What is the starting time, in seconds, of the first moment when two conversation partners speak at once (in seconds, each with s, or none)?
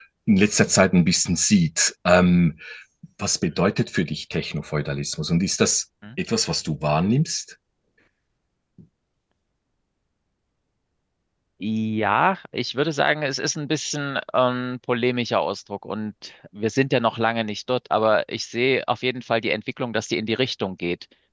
none